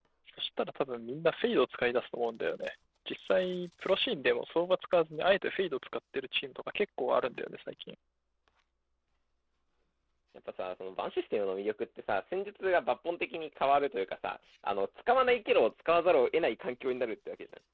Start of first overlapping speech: none

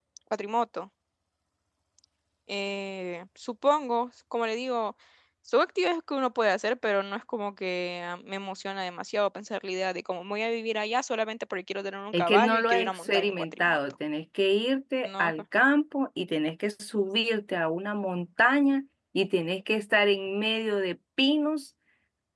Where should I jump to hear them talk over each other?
12.1 s

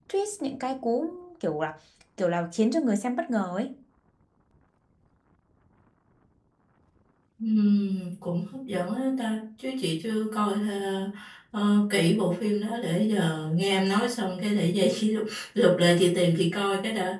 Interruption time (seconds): none

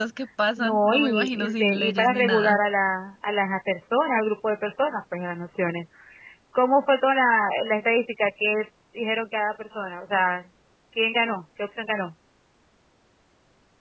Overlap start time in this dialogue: 0.6 s

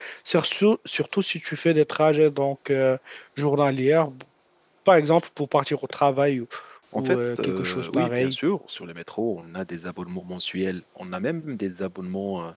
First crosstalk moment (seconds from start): 7.0 s

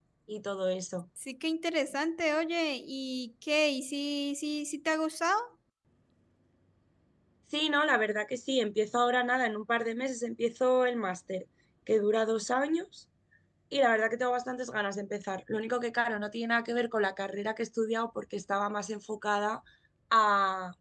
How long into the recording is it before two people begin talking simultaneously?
none

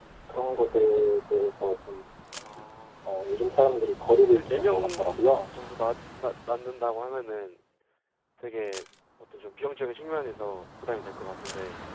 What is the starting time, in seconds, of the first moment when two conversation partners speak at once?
4.0 s

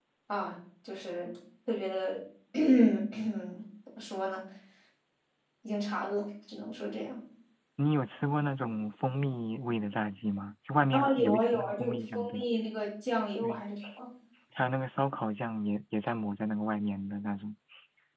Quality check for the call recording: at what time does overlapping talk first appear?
10.9 s

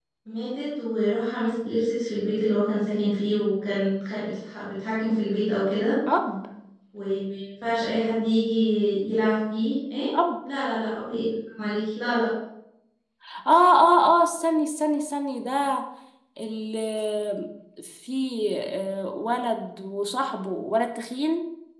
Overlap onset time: none

